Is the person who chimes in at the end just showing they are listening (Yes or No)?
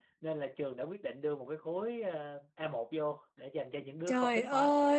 No